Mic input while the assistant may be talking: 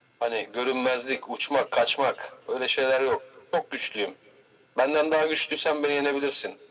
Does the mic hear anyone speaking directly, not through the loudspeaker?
No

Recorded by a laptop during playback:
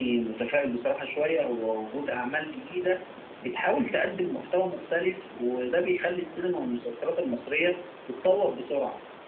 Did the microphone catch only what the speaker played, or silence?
Yes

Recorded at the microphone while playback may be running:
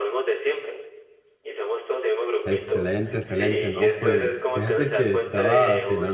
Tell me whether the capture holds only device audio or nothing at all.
No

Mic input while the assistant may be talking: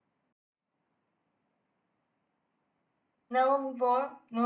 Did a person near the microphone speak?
Yes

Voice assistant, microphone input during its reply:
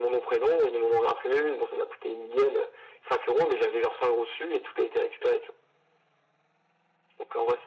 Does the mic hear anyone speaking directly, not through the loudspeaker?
No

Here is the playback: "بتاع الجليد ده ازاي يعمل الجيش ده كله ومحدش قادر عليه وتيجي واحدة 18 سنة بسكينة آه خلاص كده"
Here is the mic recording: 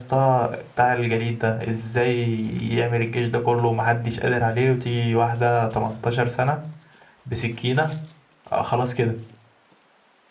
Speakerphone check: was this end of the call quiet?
Yes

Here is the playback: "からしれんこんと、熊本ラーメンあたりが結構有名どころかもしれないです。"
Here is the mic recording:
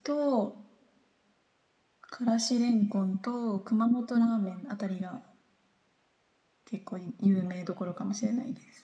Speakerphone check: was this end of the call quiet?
Yes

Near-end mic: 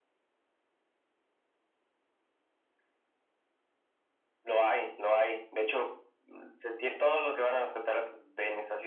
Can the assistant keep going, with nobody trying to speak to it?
Yes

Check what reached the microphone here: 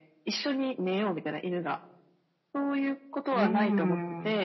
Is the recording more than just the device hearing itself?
Yes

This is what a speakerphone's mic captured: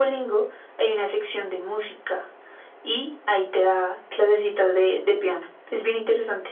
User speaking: No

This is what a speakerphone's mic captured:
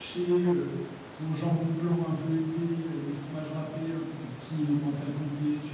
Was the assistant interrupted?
Yes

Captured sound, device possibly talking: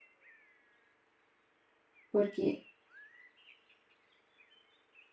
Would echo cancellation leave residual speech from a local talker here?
Yes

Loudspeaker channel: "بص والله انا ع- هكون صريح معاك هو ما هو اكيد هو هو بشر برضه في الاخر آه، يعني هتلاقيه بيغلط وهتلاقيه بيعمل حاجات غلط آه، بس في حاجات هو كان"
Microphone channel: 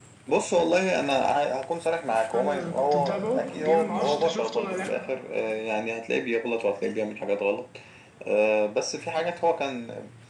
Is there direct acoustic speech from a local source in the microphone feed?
Yes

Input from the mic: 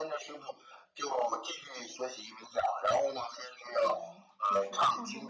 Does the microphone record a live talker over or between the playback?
Yes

